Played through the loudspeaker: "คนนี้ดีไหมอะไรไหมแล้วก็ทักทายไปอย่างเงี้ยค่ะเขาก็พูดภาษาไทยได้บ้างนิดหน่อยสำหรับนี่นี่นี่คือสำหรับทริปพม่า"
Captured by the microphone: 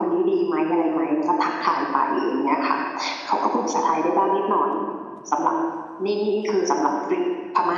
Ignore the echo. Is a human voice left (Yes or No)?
No